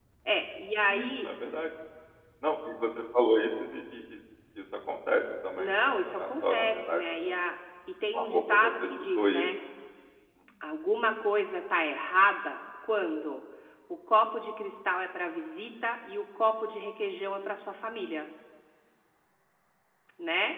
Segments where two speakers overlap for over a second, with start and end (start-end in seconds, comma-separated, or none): 5.6-7.4, 8.1-9.5